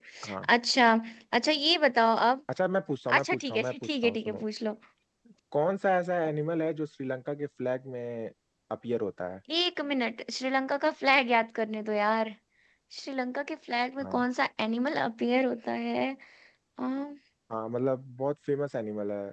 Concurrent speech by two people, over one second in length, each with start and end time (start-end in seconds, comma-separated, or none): 3.2-4.4